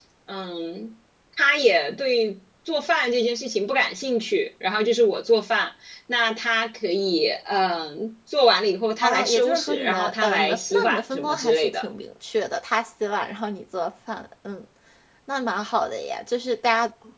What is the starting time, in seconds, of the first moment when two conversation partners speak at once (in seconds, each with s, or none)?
9.0 s